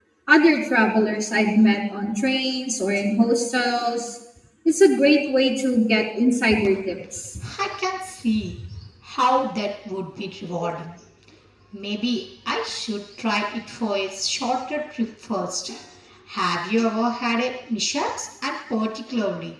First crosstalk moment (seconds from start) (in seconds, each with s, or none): none